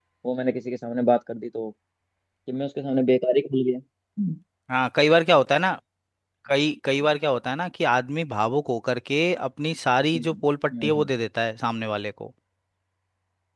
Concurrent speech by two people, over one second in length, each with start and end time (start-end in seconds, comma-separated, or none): none